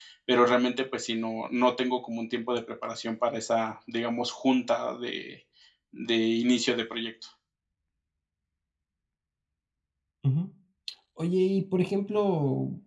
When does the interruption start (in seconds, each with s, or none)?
none